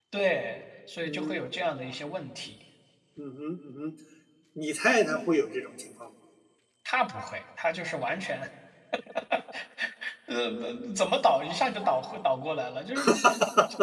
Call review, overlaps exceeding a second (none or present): none